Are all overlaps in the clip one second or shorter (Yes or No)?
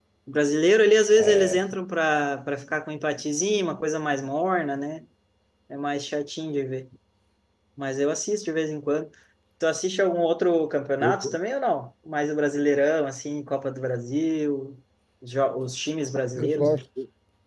Yes